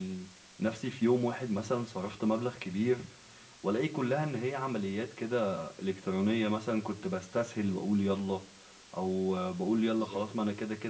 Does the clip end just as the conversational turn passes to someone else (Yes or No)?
No